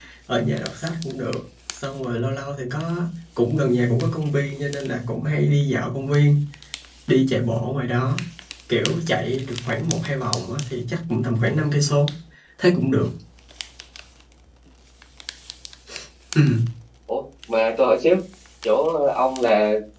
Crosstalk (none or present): none